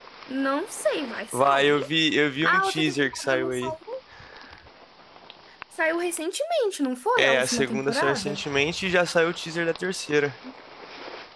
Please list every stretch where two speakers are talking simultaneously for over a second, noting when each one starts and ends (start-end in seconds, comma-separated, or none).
2.4-3.7, 7.2-8.4